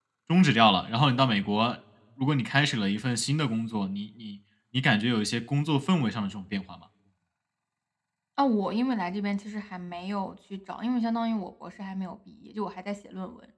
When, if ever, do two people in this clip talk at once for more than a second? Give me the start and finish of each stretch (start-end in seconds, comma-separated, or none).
none